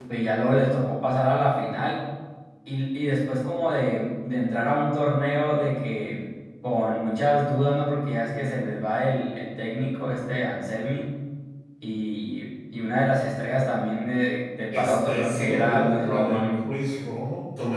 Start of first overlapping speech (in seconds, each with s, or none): 14.7 s